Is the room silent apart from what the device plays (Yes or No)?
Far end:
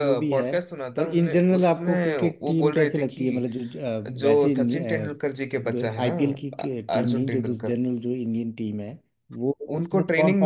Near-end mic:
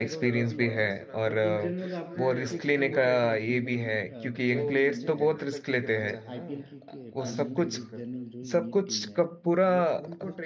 No